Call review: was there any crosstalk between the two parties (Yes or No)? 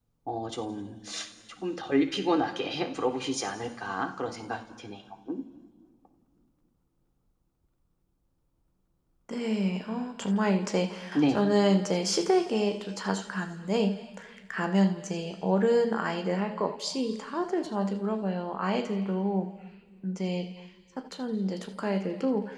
No